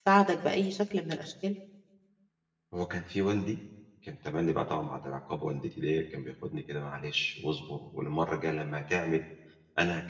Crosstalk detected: No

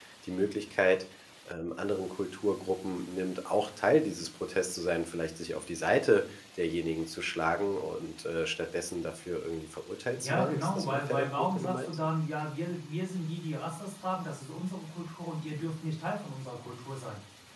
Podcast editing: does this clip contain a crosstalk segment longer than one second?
Yes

